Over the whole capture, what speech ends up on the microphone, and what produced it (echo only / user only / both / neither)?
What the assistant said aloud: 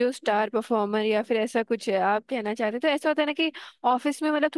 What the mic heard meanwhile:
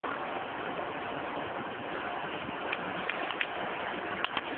neither